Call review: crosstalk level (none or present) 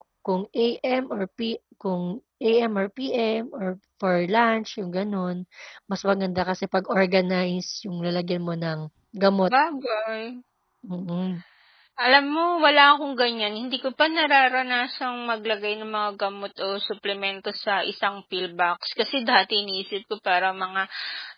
none